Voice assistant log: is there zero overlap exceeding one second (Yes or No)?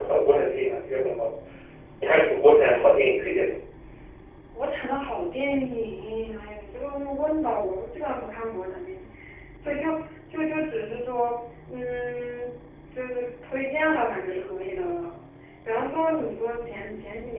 Yes